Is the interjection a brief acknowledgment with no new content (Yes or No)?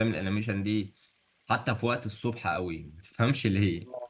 Yes